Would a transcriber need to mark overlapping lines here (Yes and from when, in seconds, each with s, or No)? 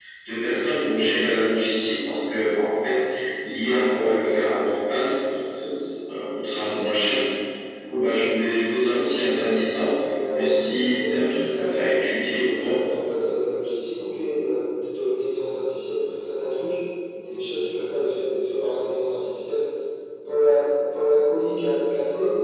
Yes, from 10.3 s